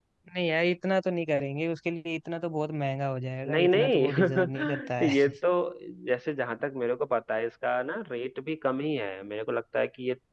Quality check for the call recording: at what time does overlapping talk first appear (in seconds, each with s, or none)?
3.5 s